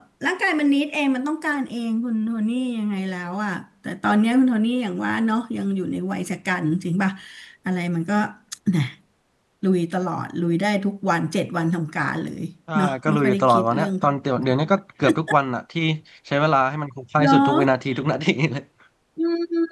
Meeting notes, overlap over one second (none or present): present